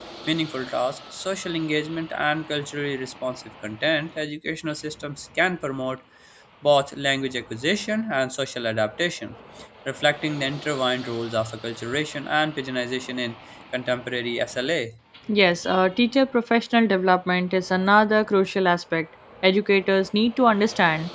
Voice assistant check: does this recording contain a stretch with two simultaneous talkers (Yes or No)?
No